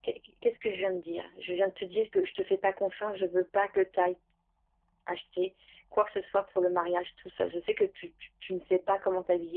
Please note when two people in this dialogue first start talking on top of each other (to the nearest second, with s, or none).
none